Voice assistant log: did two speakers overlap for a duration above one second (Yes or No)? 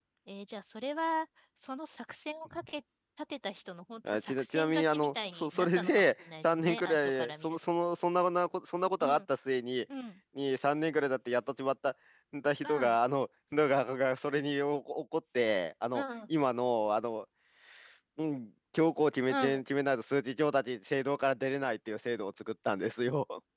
Yes